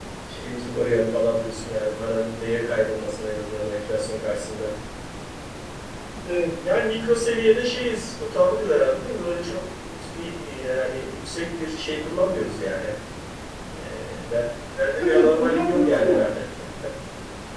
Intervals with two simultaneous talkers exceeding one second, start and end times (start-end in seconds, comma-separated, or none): 15.0-16.2